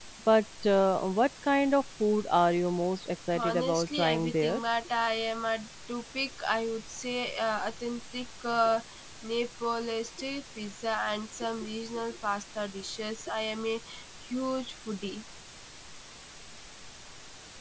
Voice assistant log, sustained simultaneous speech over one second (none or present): present